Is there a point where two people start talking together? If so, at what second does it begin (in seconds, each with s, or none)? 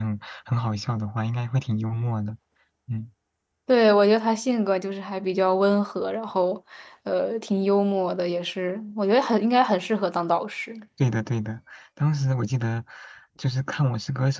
none